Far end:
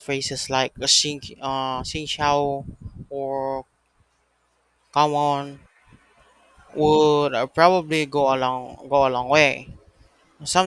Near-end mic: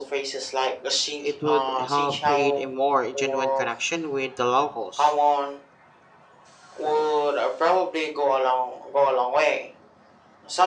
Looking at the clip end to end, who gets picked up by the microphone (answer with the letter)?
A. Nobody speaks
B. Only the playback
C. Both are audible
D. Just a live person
C